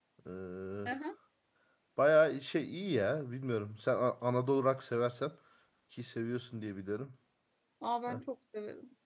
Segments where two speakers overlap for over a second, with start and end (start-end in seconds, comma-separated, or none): none